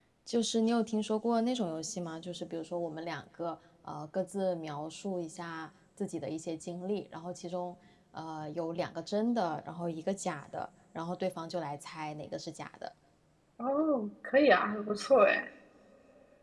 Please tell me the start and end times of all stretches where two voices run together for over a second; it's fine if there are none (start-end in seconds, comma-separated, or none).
none